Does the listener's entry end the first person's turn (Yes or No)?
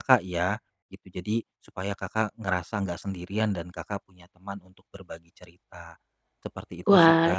Yes